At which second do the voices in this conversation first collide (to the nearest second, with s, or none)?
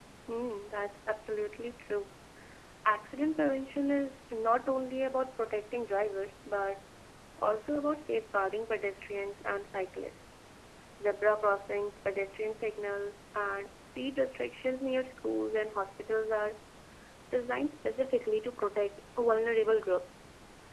none